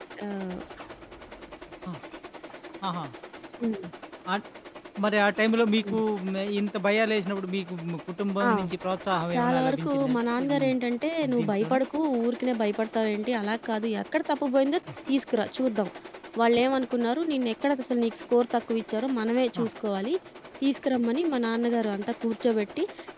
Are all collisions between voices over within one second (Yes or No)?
No